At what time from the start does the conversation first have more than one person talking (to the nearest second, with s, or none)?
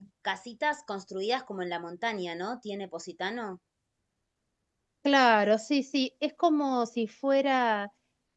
none